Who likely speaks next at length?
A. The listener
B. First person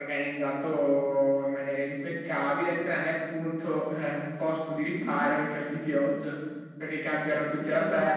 B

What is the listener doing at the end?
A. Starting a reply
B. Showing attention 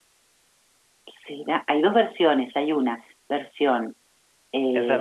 A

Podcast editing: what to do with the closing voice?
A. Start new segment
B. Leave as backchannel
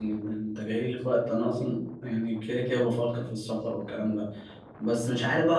B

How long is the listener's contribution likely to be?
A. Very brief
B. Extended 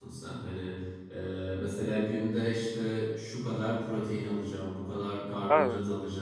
A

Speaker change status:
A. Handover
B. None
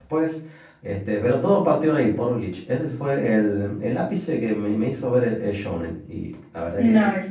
A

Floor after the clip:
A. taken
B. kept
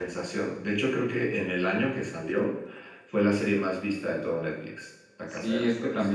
A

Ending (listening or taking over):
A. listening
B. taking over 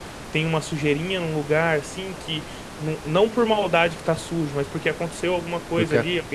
A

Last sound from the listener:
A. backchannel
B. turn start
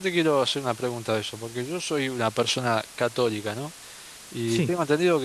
A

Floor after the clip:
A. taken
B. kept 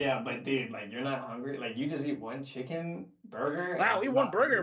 A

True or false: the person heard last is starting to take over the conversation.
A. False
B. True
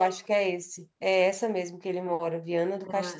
B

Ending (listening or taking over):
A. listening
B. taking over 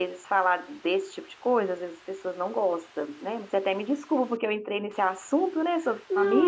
B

